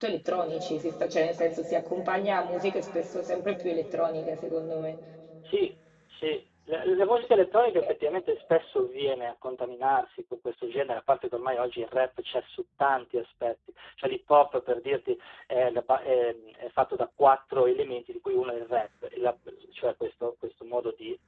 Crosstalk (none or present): none